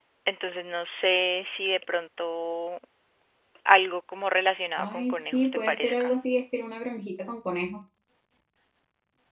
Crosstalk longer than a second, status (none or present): present